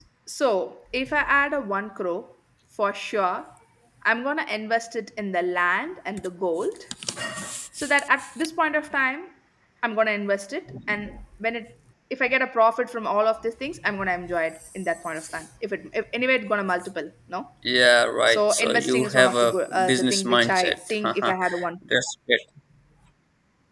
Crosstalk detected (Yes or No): Yes